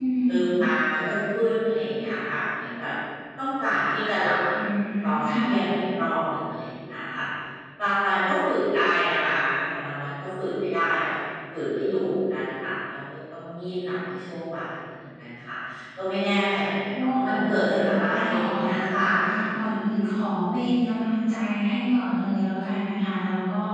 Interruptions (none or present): present